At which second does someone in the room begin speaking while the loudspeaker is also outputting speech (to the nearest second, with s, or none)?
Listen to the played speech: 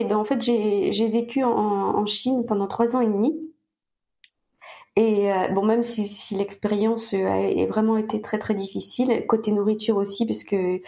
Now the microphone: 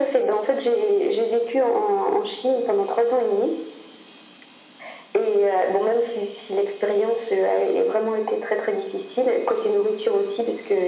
none